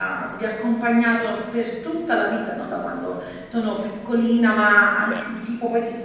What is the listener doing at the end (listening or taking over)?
listening